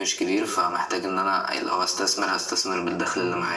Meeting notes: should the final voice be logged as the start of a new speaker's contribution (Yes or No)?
Yes